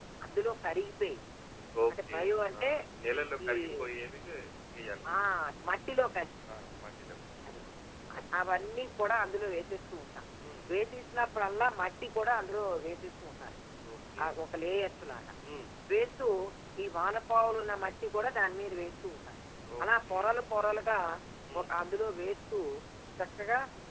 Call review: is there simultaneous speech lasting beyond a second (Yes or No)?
No